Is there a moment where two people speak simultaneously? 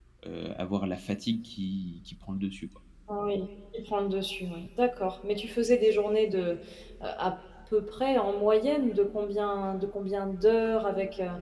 No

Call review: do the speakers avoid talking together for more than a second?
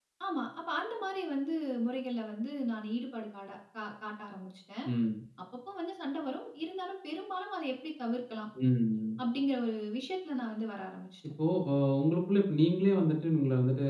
Yes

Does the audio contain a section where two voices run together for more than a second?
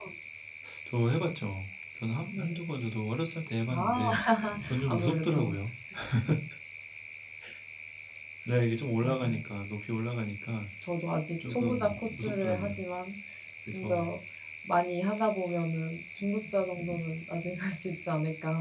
Yes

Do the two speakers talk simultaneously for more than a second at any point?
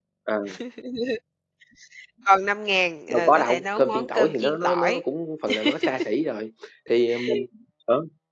Yes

